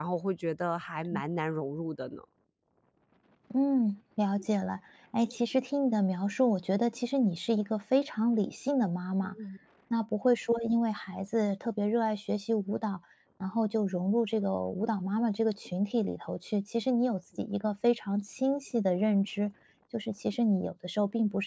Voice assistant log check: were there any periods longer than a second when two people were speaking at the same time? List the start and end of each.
none

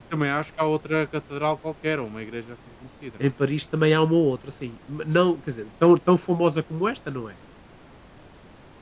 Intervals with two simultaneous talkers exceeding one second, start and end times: none

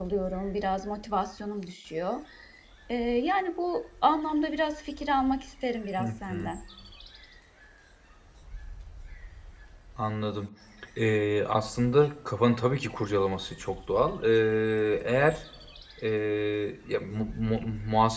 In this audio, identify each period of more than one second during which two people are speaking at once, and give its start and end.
none

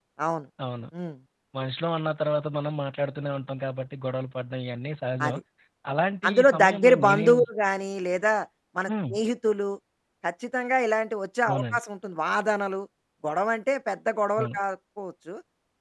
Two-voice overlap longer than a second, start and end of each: 6.3-7.5

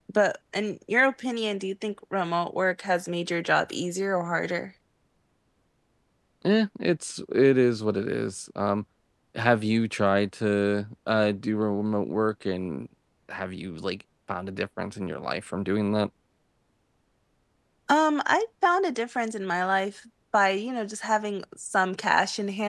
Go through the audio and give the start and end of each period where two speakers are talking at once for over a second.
none

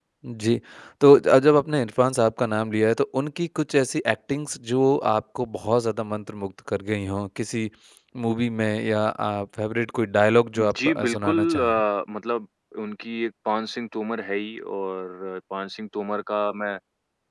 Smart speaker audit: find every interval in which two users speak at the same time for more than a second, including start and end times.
10.6-11.8

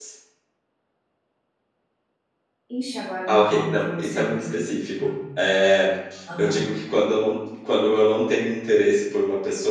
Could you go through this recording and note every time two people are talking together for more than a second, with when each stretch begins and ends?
3.3-4.6

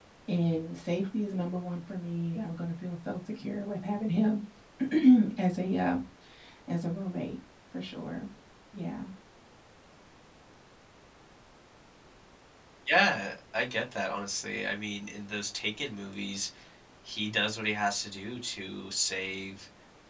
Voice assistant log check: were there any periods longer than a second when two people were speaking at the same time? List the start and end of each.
none

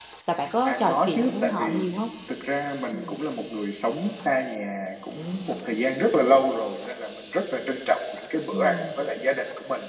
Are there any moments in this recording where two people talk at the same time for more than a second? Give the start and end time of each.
0.6-1.9

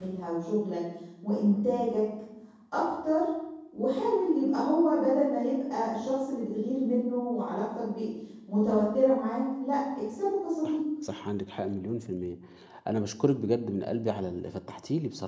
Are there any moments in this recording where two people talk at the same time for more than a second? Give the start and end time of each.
none

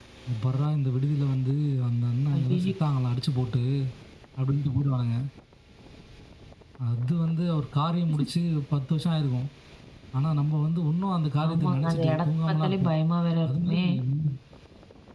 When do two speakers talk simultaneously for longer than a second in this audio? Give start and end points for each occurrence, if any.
11.5-12.9

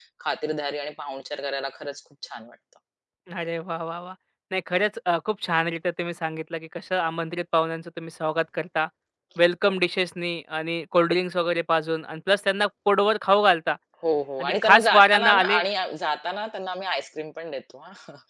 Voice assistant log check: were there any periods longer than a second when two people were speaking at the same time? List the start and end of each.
14.4-15.6

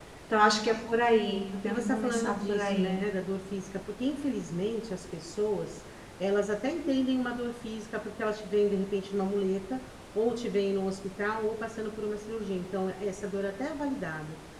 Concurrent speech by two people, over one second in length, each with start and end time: 1.7-3.0

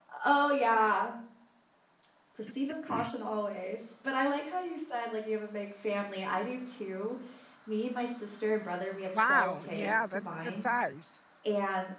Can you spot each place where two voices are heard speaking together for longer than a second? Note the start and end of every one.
9.1-10.7

